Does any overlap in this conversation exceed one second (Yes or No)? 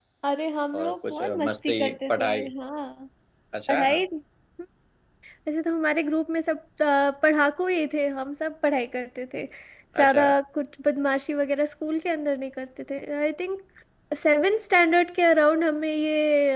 Yes